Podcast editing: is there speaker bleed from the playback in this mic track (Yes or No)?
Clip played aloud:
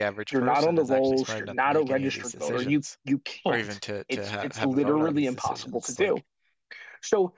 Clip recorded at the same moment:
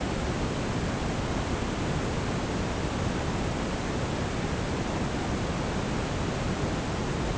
No